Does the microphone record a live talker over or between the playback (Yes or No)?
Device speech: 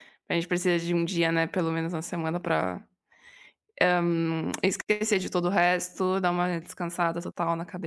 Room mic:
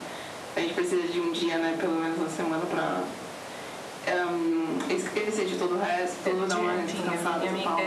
Yes